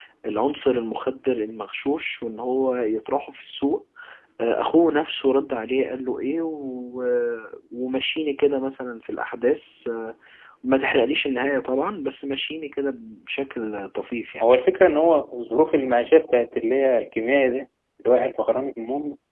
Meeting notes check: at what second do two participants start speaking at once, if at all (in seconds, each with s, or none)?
none